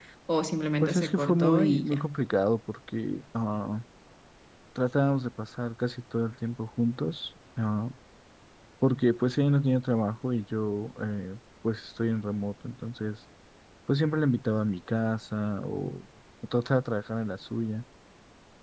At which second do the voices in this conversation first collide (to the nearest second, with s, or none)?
1 s